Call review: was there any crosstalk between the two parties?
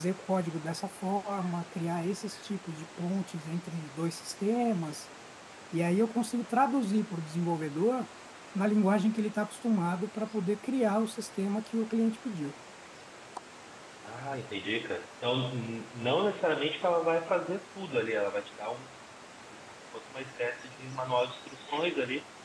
No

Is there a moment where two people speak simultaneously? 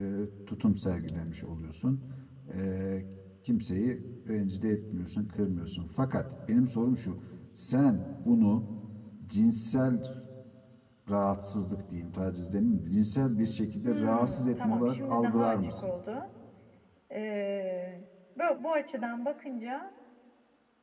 Yes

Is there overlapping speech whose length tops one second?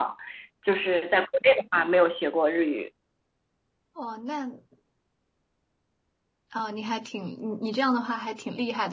No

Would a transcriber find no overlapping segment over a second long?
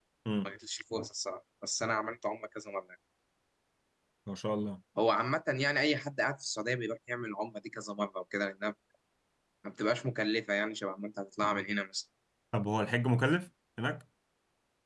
Yes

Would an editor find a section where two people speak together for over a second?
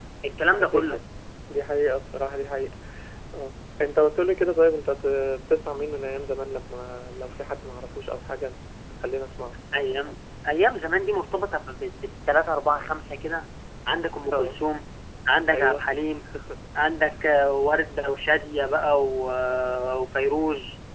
No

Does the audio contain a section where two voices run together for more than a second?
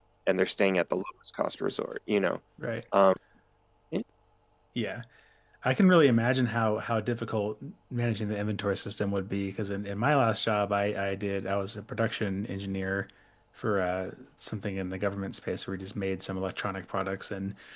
No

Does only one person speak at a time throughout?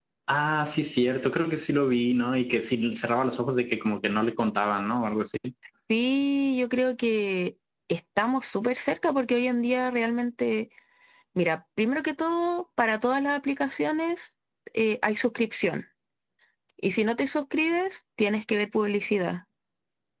Yes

